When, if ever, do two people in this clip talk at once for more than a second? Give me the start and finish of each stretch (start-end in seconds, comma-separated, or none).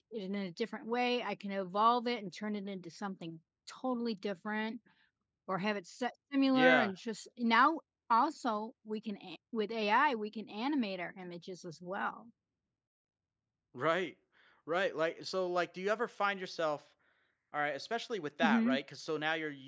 none